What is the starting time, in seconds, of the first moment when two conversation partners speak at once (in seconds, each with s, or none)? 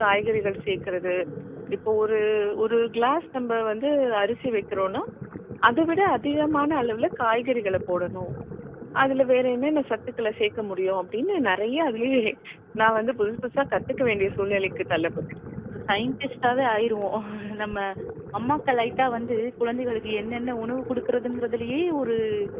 none